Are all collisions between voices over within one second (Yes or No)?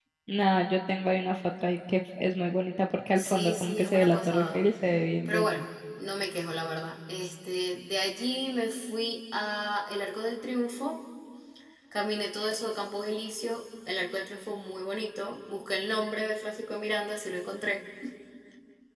No